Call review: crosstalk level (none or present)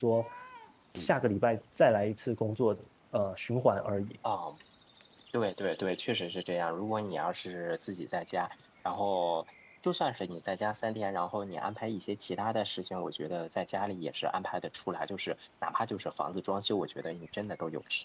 none